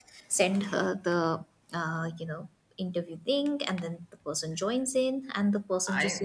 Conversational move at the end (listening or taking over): taking over